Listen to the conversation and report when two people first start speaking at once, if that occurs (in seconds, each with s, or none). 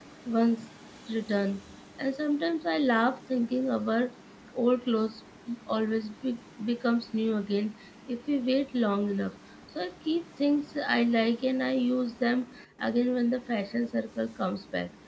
none